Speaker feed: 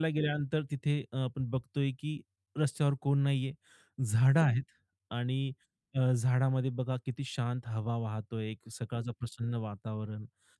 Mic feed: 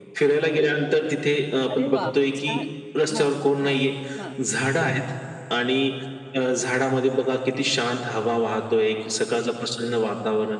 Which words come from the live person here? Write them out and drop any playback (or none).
अरे वाह! छान. हां, हां, हां.